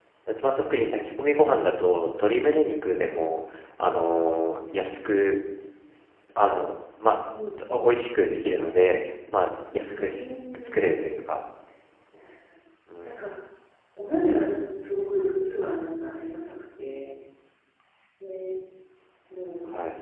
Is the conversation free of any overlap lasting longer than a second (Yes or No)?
No